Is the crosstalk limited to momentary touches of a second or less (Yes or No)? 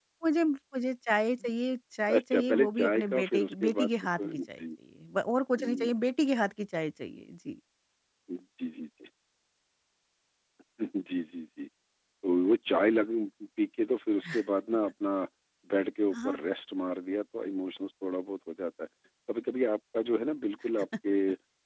No